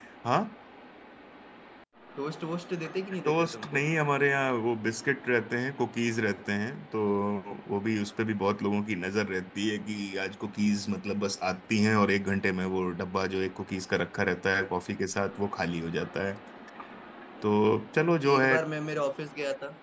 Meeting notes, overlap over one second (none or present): none